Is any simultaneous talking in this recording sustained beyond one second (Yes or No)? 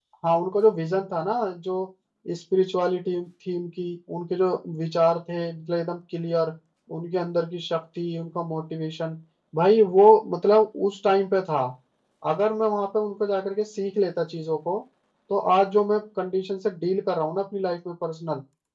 No